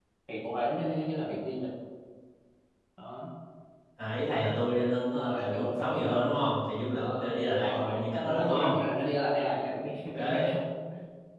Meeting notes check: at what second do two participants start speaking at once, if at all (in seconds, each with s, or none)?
5.1 s